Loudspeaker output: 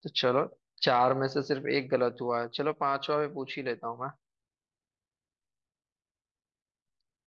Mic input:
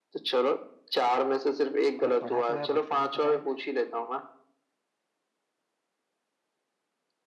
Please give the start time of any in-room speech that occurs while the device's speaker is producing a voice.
2.0 s

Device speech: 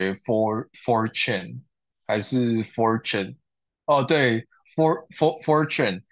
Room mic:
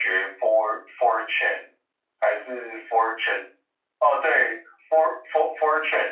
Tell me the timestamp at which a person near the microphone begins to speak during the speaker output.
none

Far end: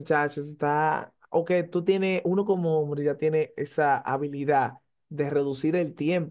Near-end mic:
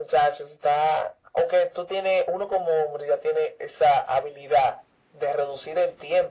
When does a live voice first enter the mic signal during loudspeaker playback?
none

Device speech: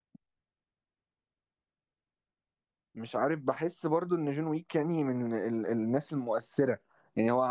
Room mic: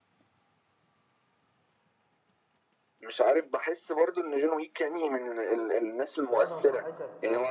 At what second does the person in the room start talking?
6.3 s

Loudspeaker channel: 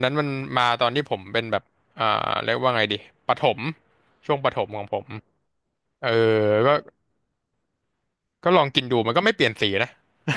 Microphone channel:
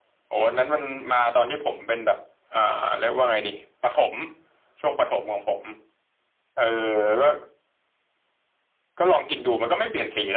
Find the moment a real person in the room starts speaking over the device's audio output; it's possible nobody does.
none

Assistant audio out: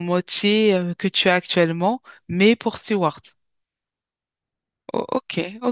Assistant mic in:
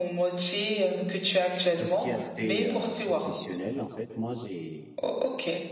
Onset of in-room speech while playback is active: 1.8 s

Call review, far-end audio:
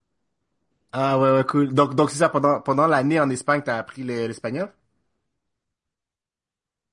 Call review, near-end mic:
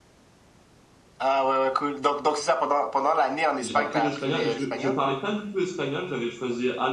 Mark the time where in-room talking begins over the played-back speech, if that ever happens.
3.6 s

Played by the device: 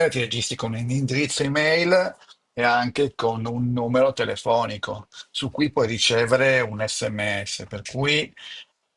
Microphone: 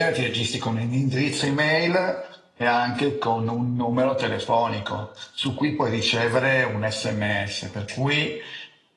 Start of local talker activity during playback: none

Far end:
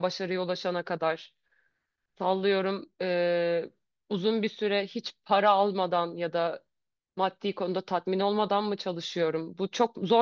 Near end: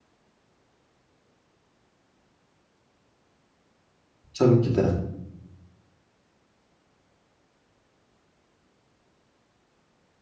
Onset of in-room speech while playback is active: 4.3 s

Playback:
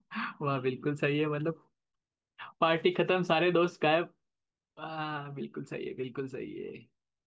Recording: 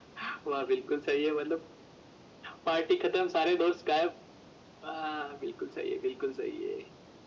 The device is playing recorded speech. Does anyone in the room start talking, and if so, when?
none

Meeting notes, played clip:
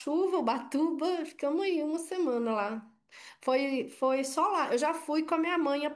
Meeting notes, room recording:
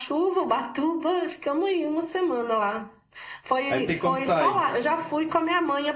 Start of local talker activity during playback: 3.7 s

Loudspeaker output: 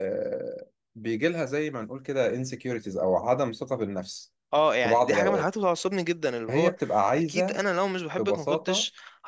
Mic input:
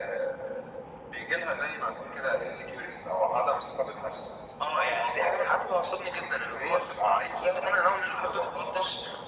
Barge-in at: none

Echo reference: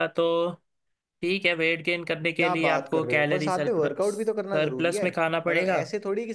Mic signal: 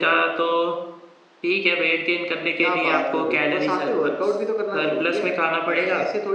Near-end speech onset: none

